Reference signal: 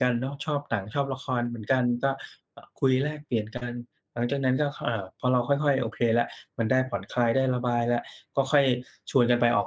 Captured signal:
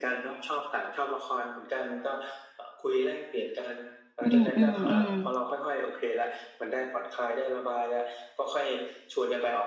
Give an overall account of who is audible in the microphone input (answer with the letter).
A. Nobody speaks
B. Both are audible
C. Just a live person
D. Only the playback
B